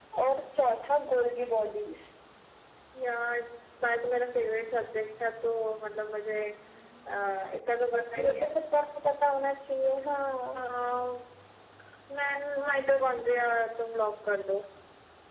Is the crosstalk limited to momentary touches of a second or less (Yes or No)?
Yes